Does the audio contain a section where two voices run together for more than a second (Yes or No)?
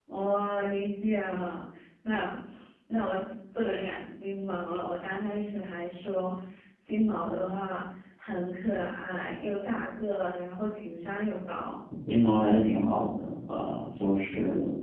No